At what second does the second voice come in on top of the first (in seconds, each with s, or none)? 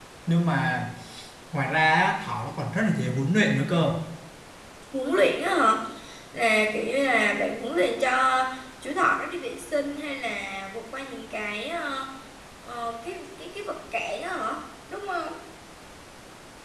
none